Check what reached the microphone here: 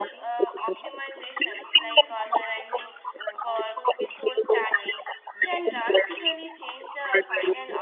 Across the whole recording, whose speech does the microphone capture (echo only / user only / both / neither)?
both